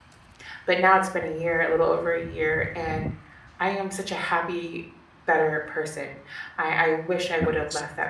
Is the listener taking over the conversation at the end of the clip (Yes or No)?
No